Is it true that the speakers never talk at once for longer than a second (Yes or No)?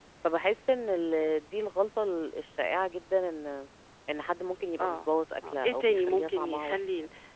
No